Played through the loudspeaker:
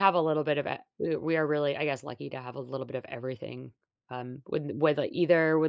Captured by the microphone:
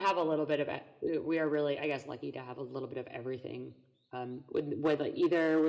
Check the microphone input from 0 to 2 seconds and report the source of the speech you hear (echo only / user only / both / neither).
echo only